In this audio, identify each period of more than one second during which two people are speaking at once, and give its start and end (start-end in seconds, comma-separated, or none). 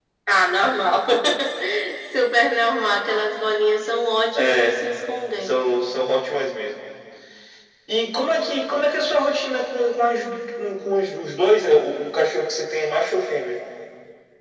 none